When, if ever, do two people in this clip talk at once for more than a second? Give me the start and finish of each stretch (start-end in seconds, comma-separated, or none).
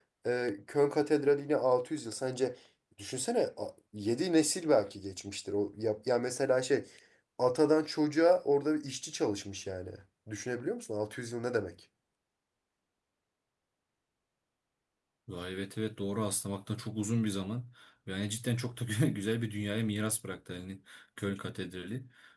none